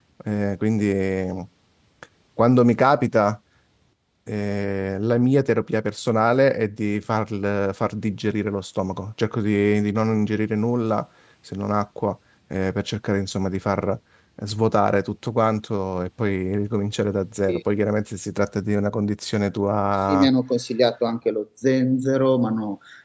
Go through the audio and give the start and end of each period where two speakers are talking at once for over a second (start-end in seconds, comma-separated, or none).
none